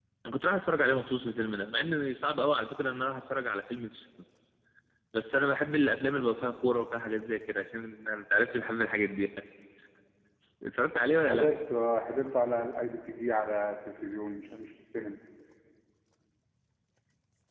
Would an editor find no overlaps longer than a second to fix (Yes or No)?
Yes